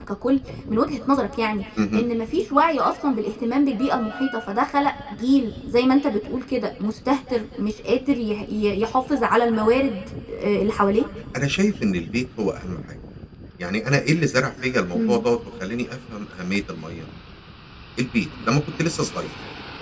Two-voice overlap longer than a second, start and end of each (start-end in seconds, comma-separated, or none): none